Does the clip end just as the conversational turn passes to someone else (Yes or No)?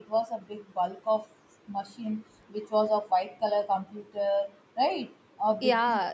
Yes